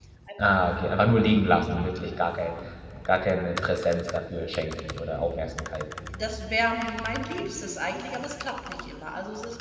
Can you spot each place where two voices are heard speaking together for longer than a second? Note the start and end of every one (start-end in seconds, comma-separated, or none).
none